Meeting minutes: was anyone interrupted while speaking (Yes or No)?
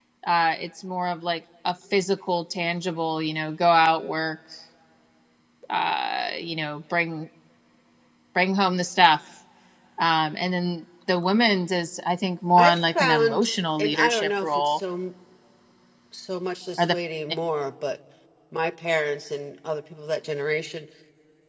Yes